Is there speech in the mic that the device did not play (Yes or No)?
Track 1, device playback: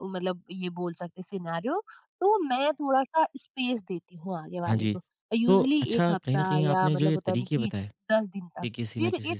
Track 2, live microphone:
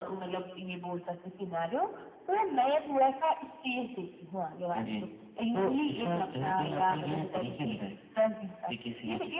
No